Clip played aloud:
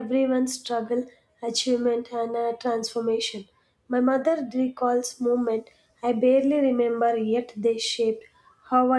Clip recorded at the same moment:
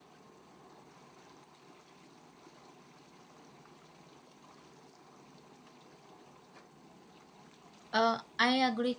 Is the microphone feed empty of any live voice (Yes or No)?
No